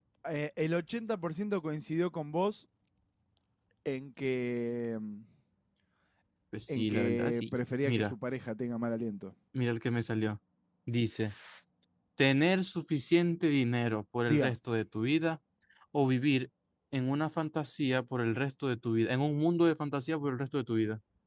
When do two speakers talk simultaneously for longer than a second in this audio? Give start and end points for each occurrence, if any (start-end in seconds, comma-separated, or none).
6.7-8.1